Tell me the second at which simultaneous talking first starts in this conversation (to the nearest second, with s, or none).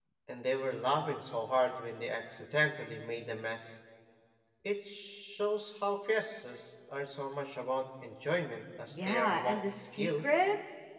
9 s